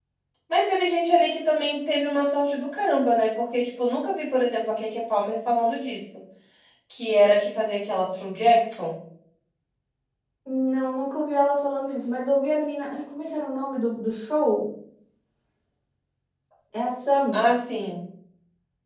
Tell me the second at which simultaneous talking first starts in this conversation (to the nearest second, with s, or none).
none